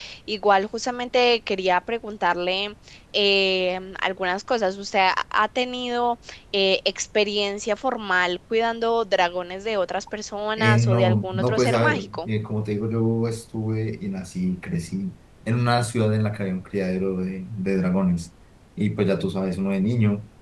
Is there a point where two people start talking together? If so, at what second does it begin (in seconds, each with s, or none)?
10.6 s